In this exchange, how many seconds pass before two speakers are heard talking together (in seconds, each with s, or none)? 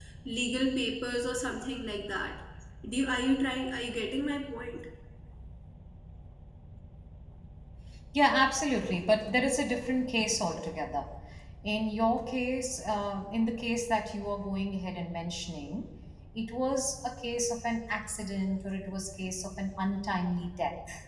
none